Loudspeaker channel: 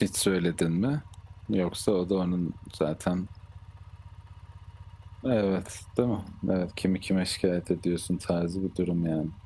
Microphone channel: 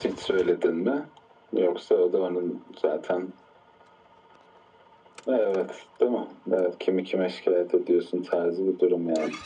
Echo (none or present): present